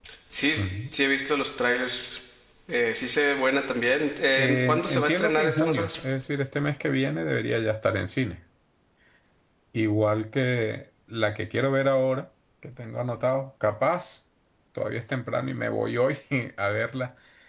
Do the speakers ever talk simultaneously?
Yes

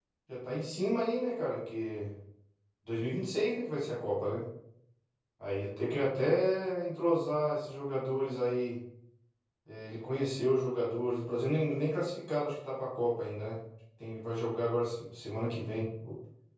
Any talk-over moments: No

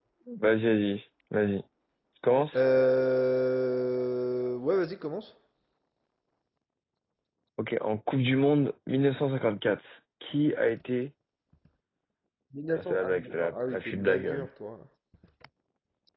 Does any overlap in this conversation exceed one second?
Yes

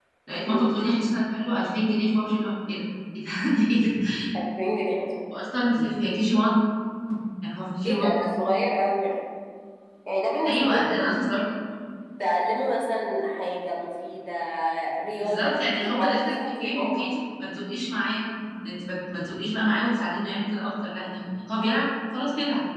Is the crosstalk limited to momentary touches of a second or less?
No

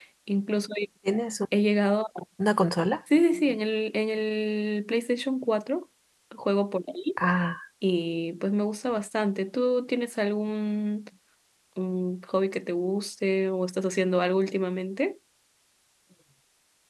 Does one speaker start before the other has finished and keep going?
No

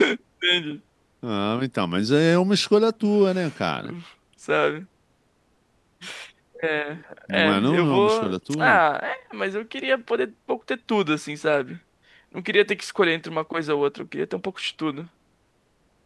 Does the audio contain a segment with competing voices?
Yes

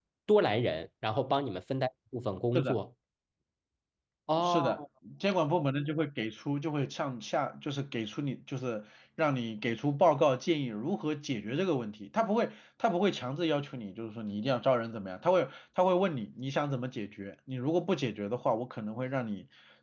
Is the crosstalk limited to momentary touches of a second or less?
Yes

